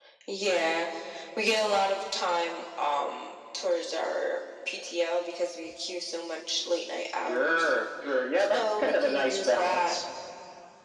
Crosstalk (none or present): present